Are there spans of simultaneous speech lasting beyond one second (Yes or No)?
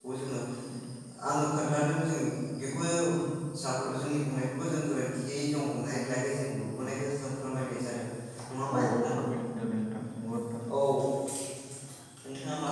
No